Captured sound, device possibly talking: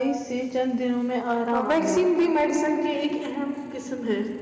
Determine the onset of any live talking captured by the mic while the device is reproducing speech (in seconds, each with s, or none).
1.5 s